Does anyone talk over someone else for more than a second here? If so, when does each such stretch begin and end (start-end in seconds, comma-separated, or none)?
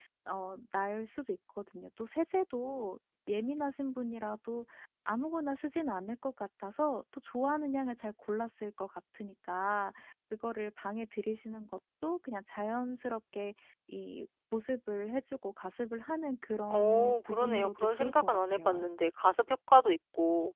16.7-18.8